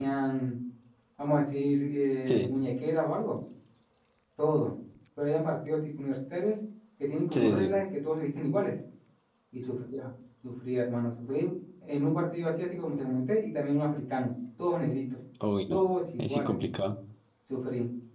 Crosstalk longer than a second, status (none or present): none